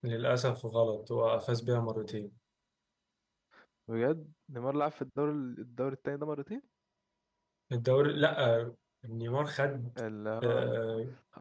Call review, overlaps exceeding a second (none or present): none